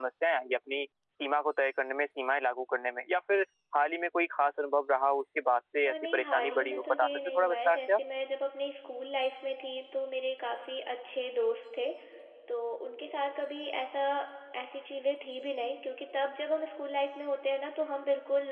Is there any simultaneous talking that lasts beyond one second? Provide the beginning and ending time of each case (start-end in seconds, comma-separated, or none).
5.9-8.0